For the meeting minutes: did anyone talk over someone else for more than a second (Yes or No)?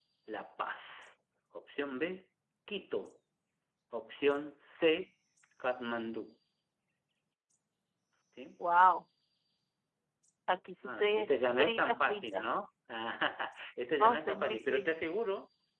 Yes